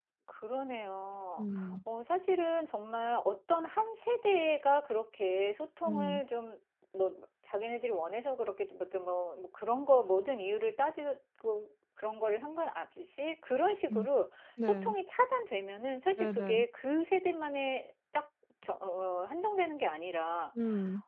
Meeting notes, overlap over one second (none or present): none